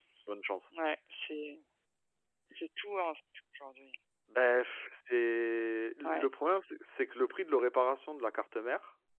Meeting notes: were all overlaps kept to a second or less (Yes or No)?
Yes